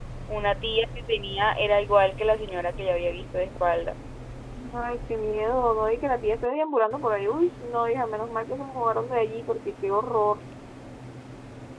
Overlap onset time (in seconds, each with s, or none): none